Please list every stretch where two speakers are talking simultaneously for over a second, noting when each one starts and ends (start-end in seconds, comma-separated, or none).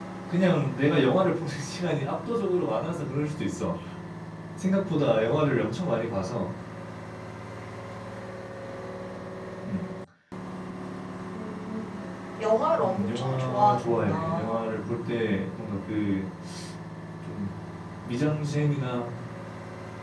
12.8-14.7